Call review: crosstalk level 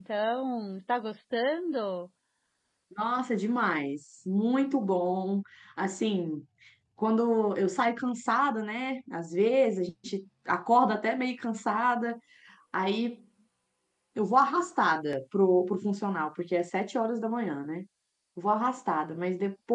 none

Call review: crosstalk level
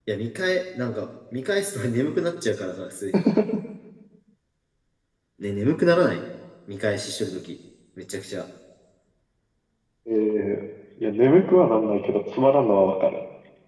none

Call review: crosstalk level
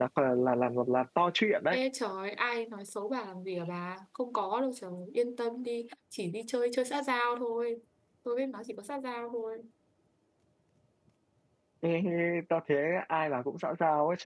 none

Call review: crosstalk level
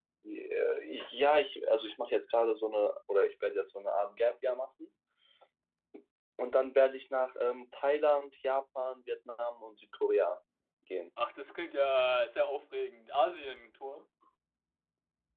none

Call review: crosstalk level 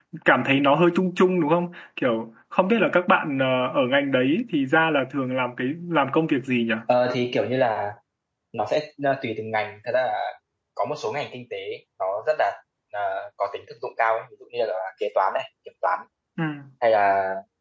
none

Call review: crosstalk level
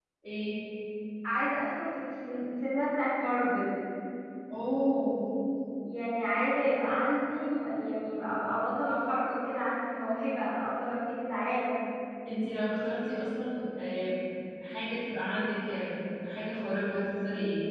none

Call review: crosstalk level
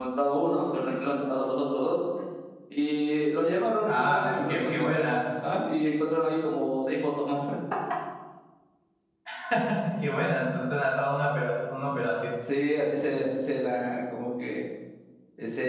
present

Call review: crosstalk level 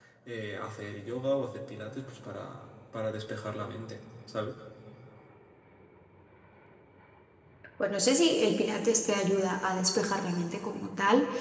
none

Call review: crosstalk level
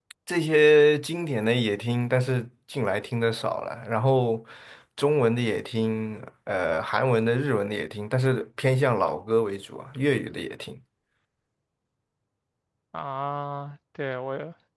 none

